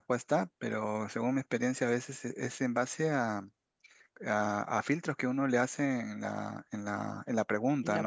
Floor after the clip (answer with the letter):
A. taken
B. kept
B